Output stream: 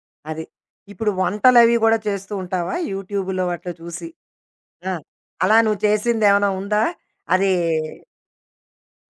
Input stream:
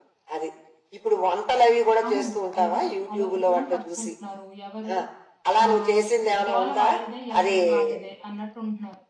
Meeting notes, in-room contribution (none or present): present